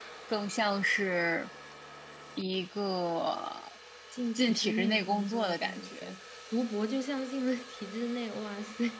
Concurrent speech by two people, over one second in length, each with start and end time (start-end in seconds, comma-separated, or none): 4.4-6.1